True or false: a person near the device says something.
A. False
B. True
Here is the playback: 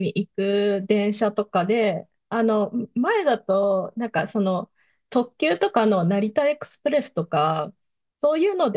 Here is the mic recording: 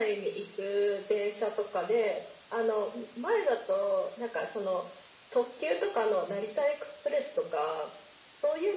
A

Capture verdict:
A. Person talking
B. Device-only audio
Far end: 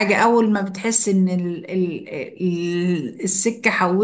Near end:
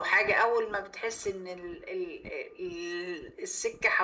B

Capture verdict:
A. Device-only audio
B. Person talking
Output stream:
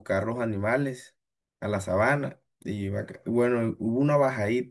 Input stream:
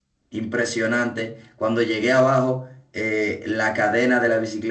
B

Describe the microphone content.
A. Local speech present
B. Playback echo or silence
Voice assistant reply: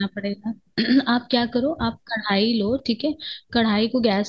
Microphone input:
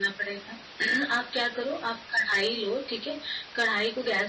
B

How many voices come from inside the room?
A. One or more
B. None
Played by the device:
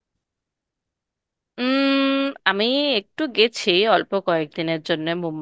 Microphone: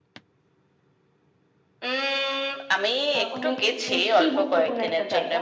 A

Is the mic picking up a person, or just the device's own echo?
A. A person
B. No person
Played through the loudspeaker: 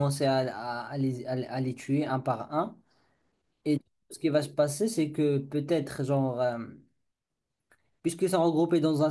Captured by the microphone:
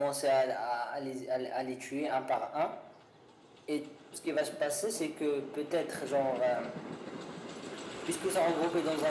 B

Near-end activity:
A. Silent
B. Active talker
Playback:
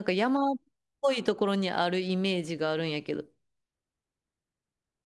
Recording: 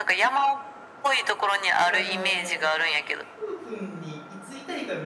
B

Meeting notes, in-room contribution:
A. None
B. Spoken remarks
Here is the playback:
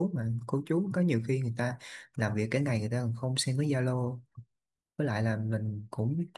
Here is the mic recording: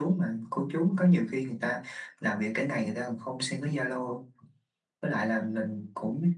A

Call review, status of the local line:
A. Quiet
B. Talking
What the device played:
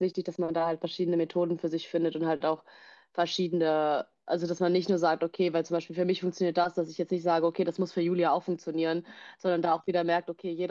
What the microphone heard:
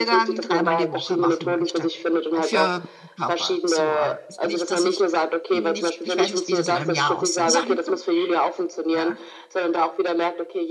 B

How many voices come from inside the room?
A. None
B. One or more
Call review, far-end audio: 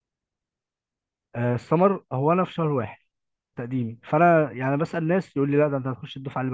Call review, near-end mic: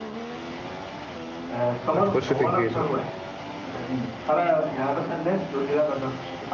B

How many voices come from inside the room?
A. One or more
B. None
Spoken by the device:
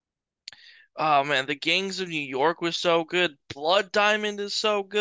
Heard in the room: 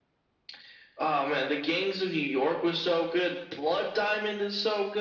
B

